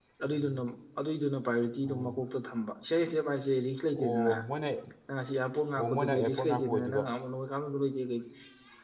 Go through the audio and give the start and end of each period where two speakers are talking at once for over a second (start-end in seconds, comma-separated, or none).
5.8-7.0